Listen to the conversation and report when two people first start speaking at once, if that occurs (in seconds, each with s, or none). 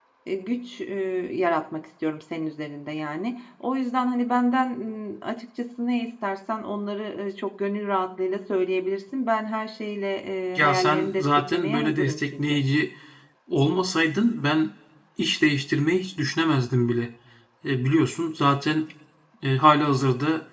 10.6 s